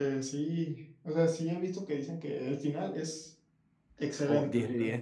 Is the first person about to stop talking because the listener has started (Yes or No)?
Yes